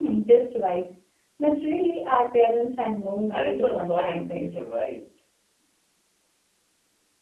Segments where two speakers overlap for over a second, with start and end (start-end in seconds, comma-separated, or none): 3.3-4.6